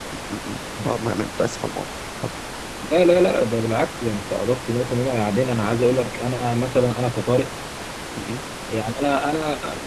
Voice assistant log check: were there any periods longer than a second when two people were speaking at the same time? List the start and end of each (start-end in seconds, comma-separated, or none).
none